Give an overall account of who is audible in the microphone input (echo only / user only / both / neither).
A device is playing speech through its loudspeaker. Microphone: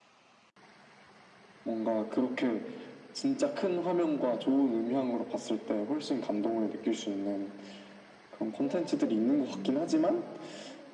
both